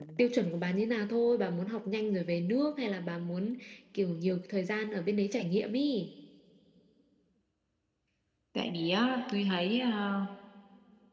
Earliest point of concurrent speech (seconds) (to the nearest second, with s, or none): none